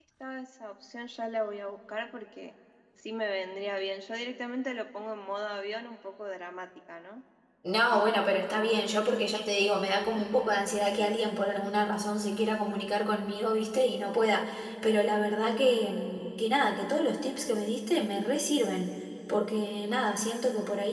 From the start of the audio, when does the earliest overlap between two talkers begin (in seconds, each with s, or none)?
none